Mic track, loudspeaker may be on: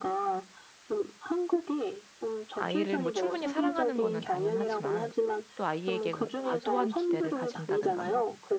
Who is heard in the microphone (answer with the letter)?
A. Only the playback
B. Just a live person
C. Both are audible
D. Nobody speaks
C